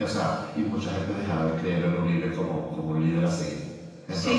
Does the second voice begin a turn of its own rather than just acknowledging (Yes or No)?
Yes